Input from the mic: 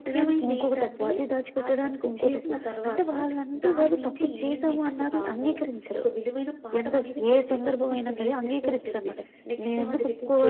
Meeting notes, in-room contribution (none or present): present